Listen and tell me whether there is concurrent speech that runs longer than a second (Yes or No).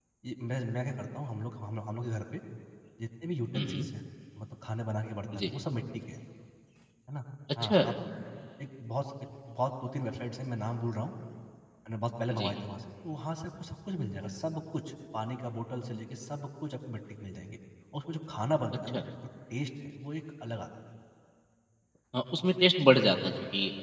No